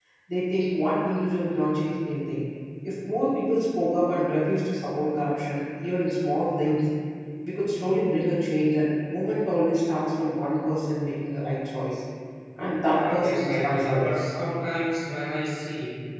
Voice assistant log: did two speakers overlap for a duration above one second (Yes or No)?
Yes